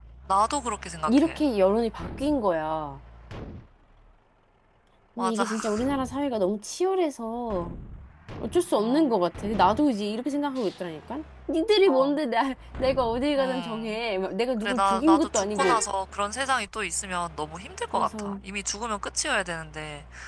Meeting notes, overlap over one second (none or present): present